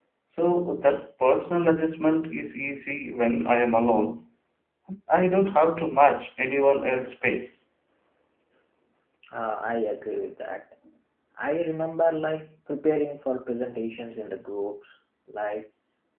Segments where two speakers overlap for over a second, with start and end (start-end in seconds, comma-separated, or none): none